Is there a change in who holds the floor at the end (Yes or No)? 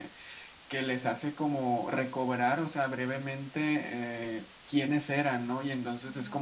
No